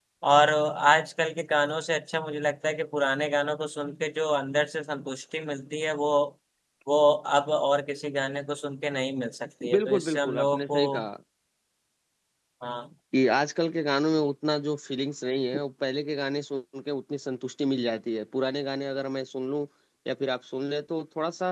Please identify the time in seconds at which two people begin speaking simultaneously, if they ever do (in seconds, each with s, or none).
9.6 s